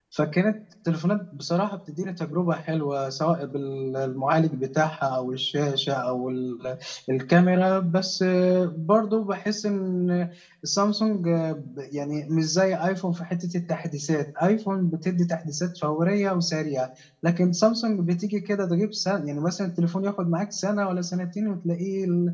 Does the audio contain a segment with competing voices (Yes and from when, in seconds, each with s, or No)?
No